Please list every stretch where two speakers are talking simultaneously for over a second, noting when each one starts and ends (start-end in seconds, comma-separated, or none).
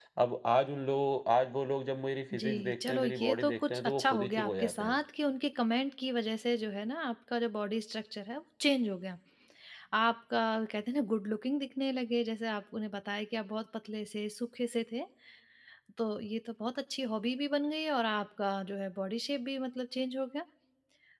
2.4-5.0